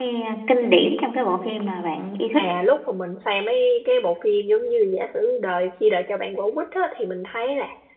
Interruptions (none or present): none